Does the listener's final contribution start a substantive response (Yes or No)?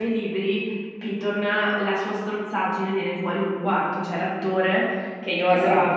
No